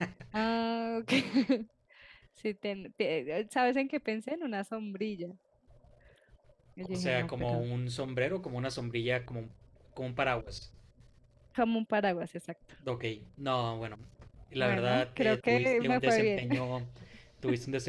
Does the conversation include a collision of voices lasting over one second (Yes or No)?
Yes